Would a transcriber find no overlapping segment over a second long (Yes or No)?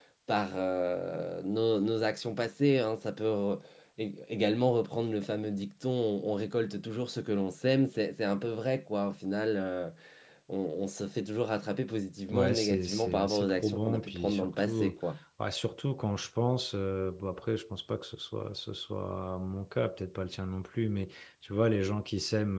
No